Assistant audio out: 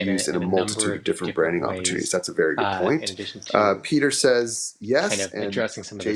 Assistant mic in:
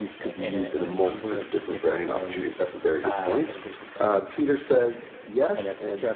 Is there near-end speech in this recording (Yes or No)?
No